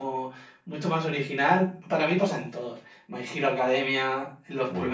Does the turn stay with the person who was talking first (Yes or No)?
No